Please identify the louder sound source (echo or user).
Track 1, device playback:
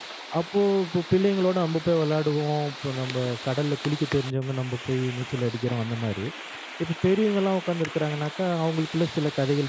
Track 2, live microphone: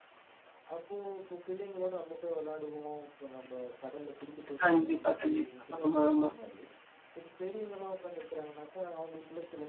user